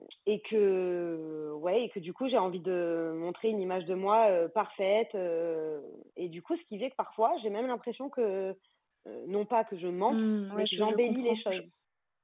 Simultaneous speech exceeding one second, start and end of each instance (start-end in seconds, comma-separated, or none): 10.1-11.6